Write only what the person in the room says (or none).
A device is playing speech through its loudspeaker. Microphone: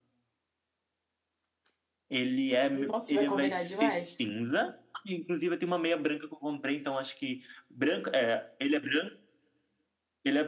Nossa, vai combinar demais.